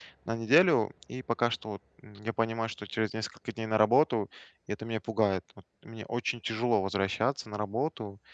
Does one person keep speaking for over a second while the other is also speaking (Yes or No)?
No